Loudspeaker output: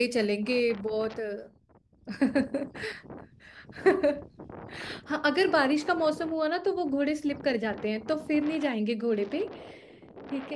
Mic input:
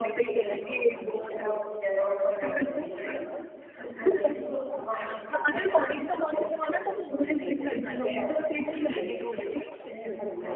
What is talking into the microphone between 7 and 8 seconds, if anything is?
both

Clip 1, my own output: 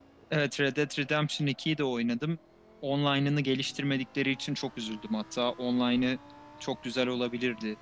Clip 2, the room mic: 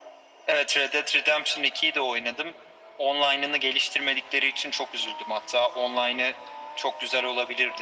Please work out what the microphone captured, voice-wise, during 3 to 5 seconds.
echo only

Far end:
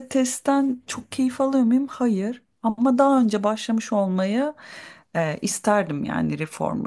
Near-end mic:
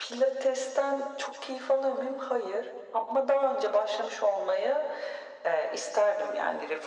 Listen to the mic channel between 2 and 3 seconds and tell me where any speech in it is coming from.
echo only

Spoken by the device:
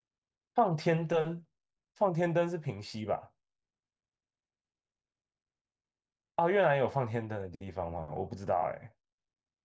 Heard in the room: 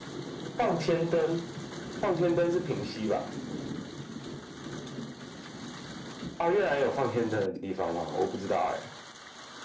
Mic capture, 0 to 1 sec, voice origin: echo only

